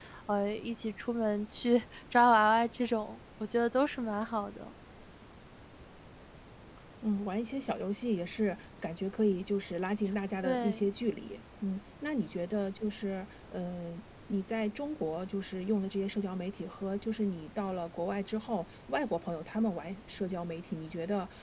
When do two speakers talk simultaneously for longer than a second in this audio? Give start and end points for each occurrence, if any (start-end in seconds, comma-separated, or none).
none